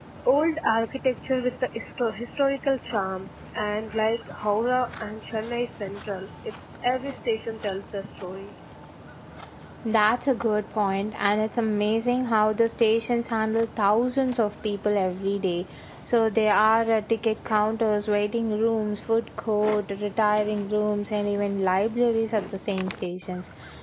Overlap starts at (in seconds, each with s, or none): none